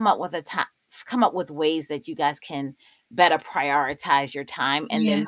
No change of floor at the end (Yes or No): Yes